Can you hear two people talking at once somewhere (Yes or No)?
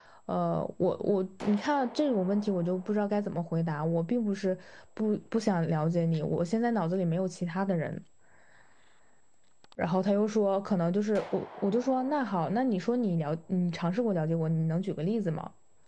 No